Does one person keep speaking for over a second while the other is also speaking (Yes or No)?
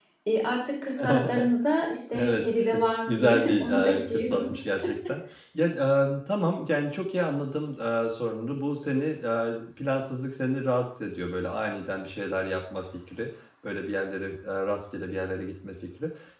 Yes